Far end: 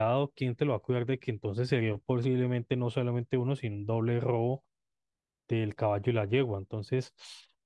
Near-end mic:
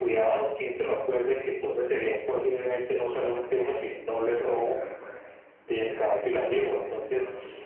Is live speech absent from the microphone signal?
No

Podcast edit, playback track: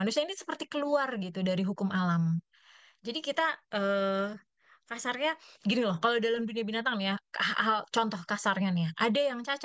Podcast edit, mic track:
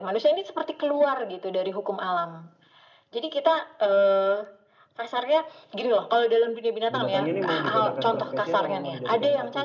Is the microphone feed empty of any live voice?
No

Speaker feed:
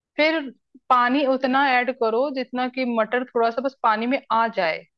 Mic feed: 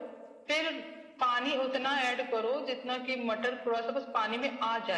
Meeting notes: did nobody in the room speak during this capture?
Yes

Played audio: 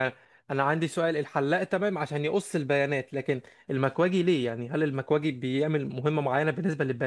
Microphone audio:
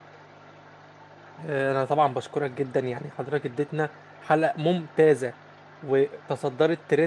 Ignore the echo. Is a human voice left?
Yes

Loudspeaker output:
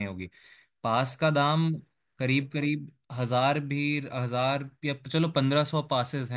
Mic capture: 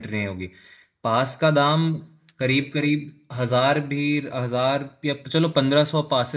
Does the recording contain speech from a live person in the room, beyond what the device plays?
No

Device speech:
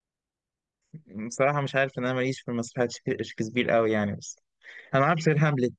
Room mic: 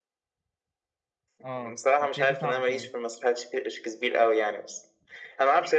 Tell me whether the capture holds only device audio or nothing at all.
No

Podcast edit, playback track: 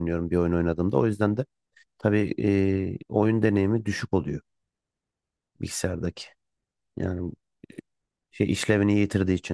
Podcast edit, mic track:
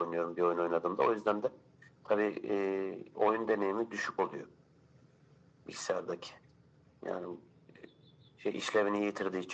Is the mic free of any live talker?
Yes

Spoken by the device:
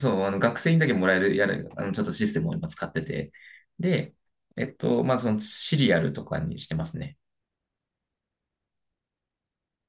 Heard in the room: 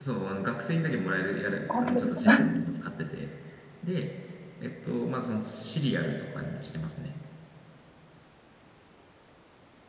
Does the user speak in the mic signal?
Yes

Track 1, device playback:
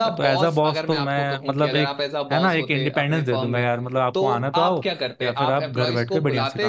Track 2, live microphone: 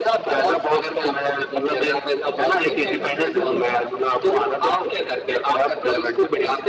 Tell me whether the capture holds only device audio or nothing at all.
No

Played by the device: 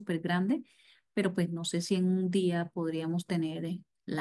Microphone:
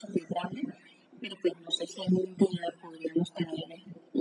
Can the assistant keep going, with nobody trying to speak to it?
Yes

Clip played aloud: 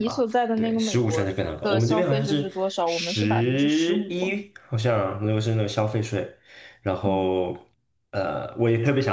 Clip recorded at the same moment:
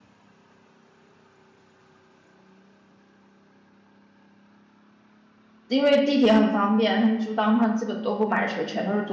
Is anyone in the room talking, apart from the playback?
Yes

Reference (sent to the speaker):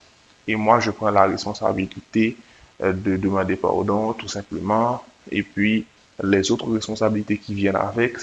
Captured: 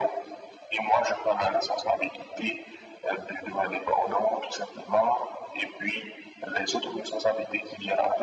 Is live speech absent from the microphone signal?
Yes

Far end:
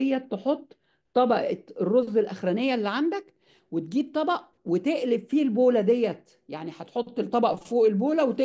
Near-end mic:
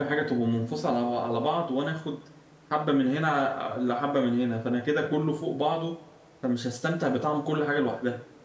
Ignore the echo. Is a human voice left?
Yes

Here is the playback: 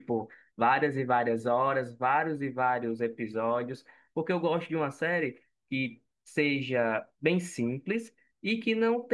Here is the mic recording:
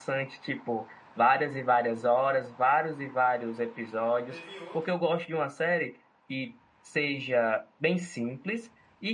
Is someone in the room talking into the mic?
Yes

